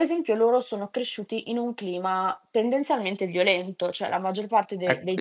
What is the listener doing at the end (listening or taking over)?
taking over